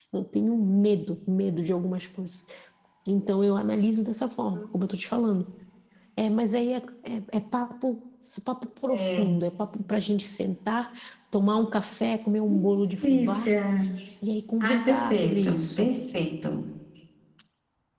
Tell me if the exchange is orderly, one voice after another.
No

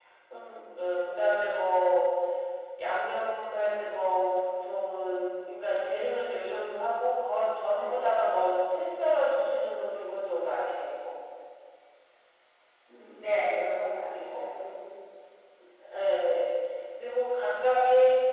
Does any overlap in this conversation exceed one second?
No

